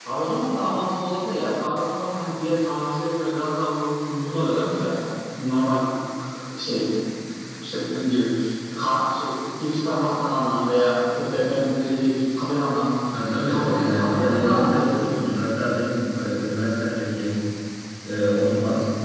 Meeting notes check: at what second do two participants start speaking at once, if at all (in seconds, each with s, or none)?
13.4 s